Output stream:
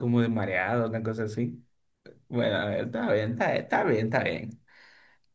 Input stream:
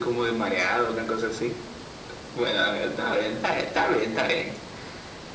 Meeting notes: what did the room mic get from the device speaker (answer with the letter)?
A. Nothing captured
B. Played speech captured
B